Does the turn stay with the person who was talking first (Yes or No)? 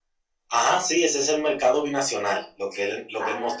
Yes